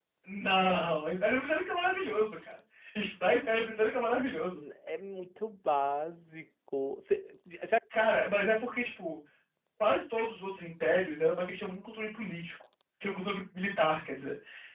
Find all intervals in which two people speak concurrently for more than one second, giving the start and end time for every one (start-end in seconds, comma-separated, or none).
none